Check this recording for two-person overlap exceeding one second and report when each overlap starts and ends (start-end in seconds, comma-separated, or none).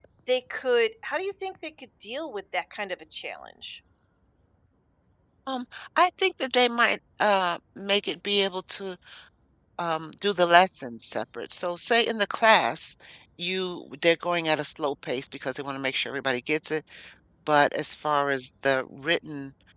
none